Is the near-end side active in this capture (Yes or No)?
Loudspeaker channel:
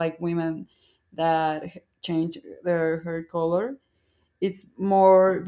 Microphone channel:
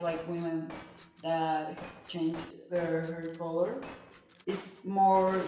No